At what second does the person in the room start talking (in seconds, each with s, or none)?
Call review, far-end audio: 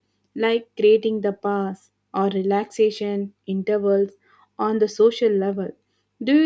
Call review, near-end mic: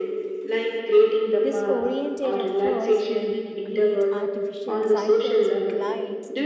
1.4 s